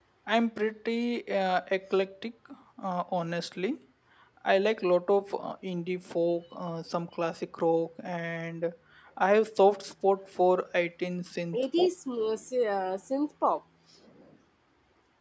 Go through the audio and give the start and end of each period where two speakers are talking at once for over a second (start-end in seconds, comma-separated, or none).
none